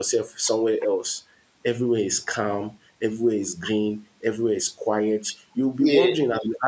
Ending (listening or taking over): listening